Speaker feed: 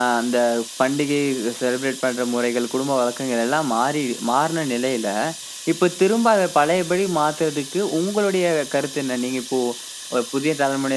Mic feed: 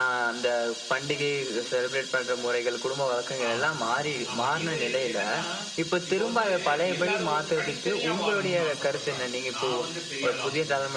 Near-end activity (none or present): present